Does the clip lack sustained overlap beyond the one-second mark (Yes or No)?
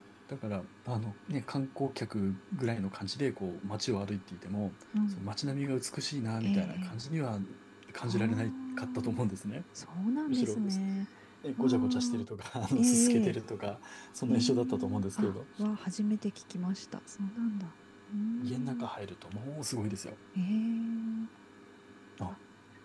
No